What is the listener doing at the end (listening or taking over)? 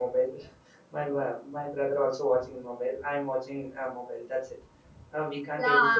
taking over